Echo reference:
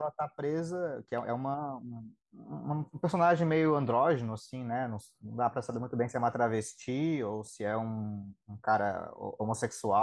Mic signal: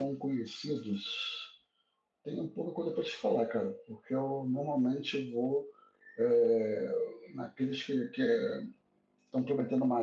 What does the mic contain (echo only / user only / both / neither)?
user only